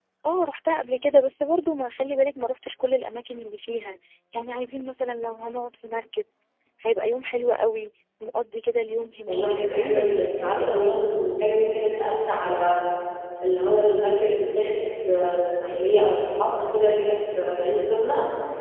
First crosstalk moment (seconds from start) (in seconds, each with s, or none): 9.3 s